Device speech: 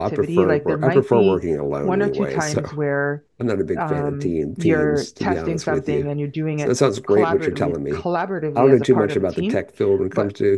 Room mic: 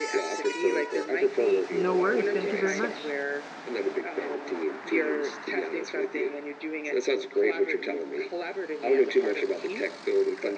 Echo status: present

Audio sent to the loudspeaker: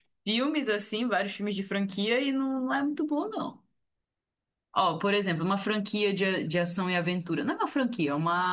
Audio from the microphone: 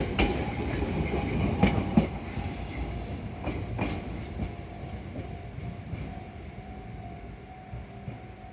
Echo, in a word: none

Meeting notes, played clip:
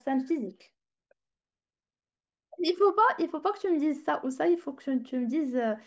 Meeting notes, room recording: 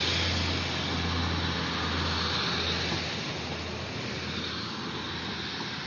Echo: none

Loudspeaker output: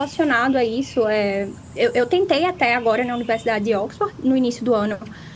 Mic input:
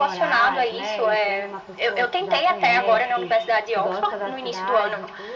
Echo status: present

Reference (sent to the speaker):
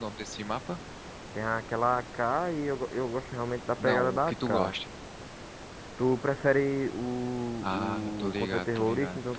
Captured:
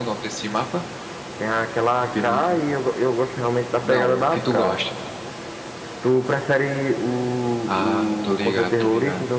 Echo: present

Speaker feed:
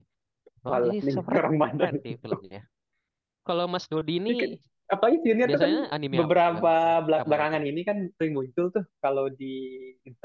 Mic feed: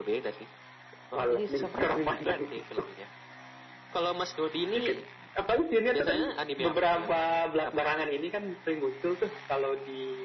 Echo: present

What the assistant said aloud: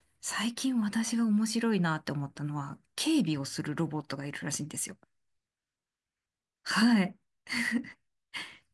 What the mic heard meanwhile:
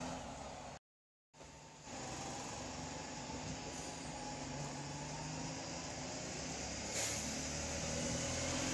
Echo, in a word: none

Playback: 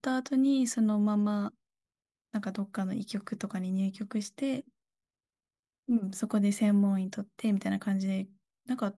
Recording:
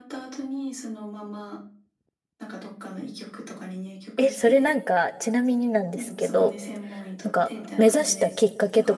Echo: present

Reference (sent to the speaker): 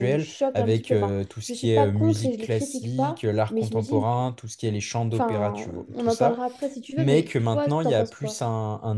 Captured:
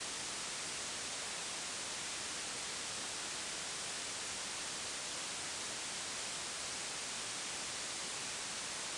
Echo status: none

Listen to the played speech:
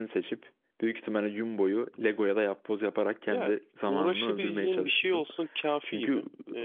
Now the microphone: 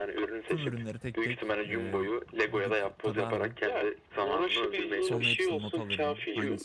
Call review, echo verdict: present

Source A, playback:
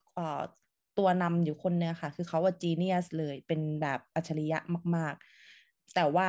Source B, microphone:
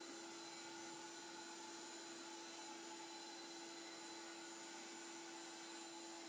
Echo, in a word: none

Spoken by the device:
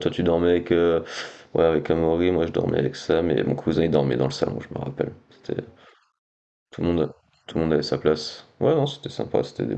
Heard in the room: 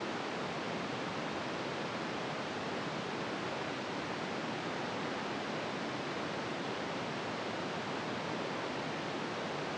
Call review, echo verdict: none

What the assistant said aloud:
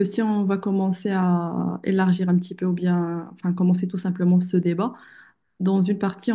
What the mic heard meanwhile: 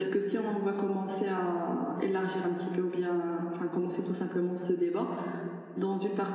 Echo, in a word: present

